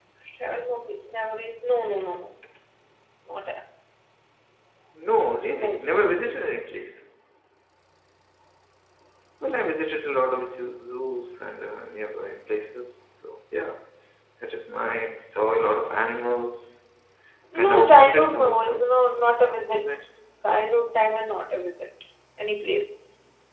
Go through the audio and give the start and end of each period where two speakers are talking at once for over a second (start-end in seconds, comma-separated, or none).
17.6-19.1